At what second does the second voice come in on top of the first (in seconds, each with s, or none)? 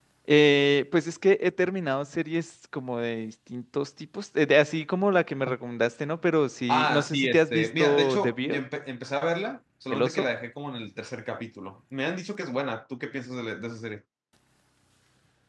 6.7 s